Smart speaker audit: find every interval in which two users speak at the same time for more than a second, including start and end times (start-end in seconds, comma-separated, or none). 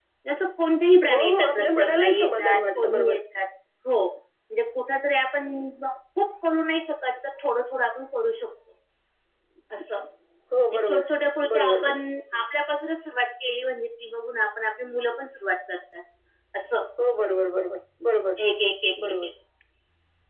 1.1-3.1